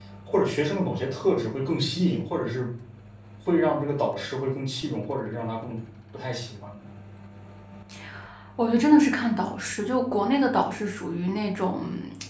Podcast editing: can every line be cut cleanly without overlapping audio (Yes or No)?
Yes